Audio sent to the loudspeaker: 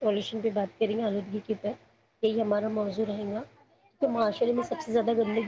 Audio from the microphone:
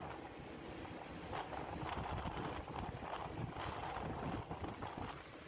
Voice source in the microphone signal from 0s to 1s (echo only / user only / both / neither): neither